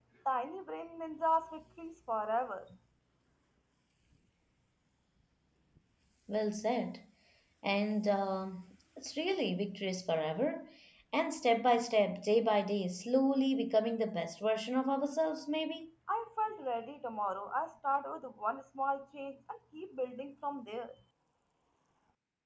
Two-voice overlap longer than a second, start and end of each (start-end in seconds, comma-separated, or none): none